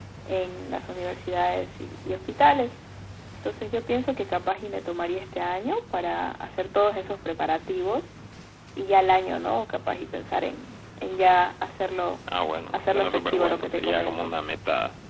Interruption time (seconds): 12.7 s

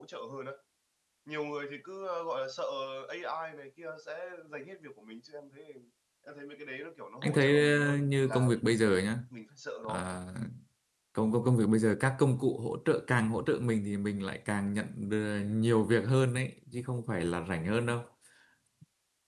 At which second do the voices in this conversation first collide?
7.2 s

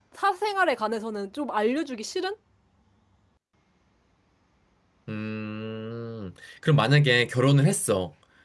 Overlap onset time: none

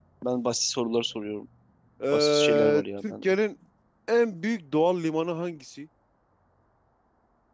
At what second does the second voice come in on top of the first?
2.1 s

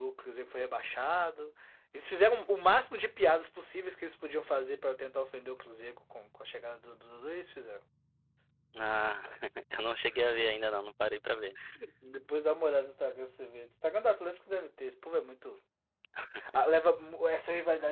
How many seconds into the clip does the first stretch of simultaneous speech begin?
none

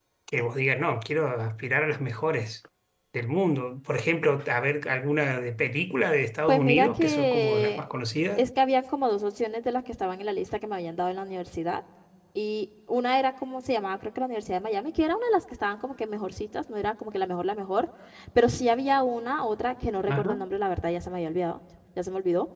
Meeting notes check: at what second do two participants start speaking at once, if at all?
6.5 s

